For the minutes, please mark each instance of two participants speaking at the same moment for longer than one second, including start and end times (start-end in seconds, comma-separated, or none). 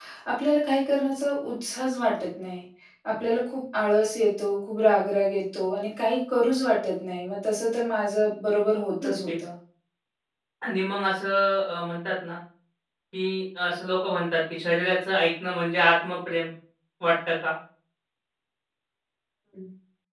none